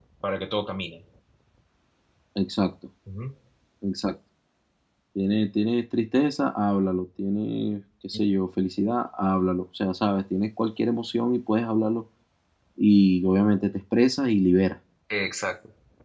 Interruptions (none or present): none